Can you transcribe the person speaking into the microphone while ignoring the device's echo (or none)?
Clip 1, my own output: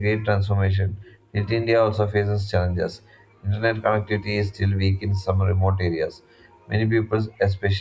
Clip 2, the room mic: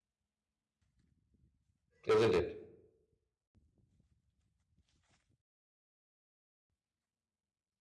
isn't it?